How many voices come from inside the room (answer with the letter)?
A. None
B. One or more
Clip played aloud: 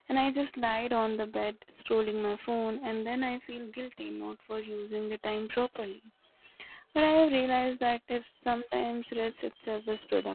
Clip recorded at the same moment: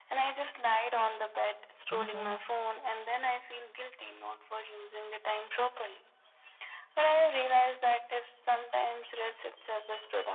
B